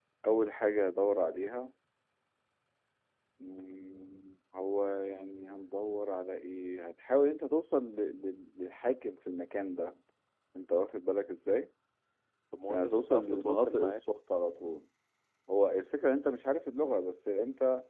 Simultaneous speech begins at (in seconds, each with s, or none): 12.7 s